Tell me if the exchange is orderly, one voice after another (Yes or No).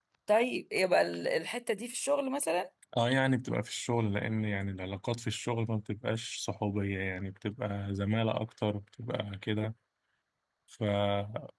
Yes